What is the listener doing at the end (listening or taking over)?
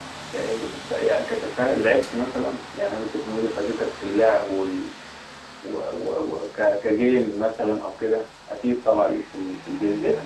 taking over